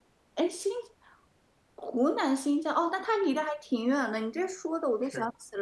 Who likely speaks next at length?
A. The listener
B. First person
B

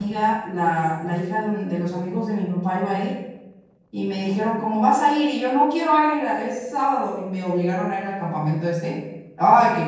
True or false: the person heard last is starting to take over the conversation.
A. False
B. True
A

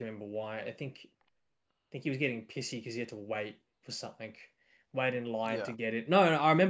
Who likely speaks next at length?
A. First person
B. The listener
A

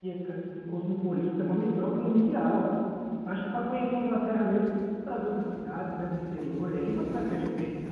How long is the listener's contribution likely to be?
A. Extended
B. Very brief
A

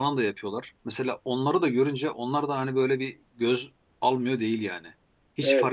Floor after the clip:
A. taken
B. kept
B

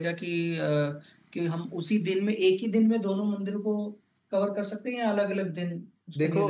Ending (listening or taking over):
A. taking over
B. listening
A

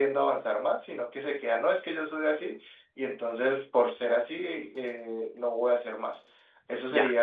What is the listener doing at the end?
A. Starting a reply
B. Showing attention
B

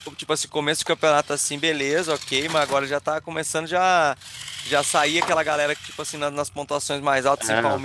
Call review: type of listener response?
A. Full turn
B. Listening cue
B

